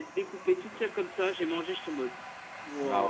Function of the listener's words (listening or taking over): taking over